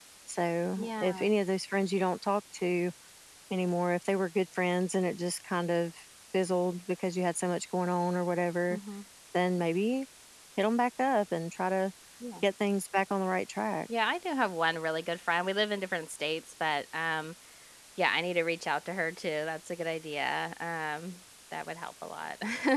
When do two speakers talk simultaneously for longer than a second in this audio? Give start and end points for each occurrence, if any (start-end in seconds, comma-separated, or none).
none